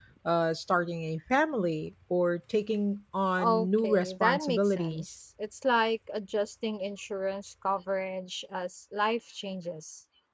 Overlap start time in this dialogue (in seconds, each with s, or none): 3.4 s